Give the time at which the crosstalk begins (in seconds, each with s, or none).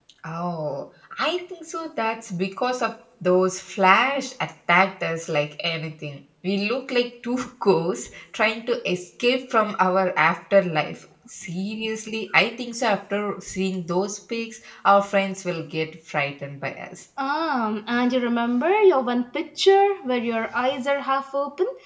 none